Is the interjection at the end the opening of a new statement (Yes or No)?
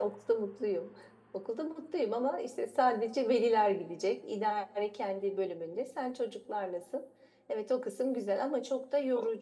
Yes